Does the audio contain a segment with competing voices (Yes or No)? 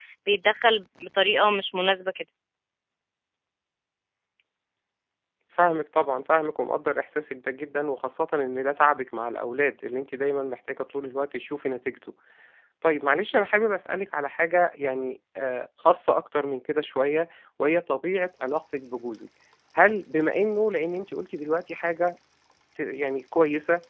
No